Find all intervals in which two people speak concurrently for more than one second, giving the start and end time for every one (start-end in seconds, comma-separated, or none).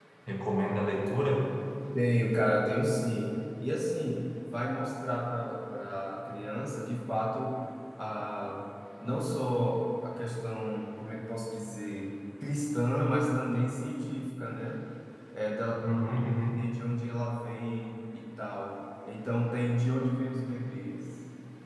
none